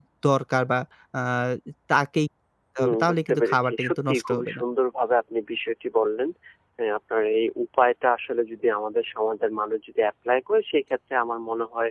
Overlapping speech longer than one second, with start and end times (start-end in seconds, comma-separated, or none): 2.8-4.6